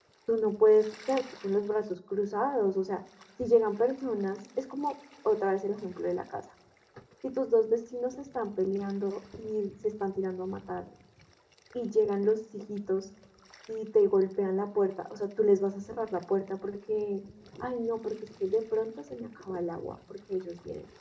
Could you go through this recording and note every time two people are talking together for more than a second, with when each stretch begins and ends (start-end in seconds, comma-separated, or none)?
none